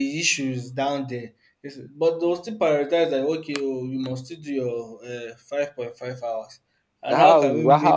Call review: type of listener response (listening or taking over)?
taking over